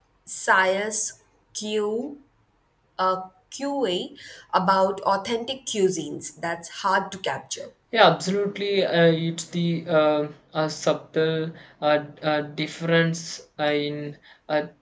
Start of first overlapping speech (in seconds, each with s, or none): none